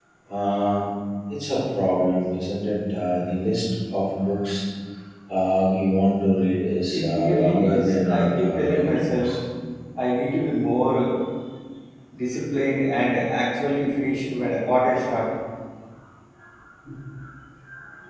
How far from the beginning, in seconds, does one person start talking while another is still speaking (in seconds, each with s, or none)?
6.9 s